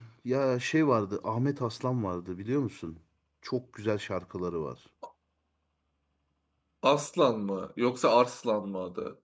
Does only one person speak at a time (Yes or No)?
Yes